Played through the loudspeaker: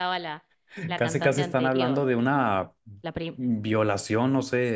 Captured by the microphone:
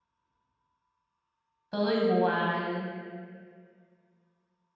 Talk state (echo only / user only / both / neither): user only